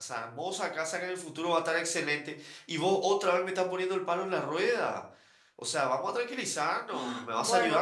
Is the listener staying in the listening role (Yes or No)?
No